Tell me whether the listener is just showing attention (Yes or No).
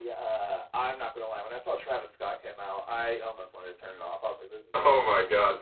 No